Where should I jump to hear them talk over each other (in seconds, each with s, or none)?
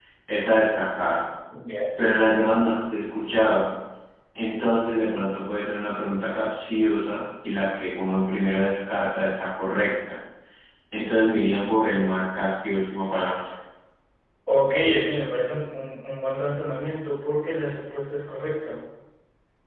none